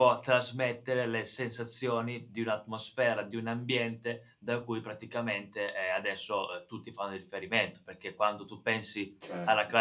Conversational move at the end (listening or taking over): listening